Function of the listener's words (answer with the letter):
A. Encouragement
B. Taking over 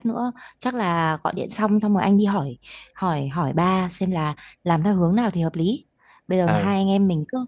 A